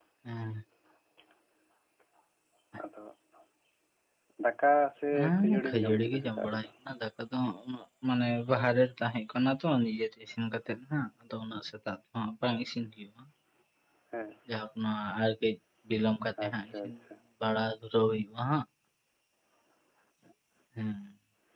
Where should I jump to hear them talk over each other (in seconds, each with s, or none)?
5.2 s